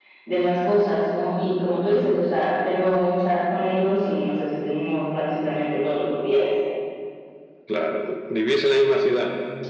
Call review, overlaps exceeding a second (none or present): none